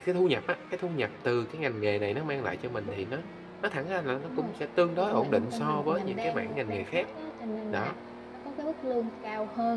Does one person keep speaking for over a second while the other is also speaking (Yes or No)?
Yes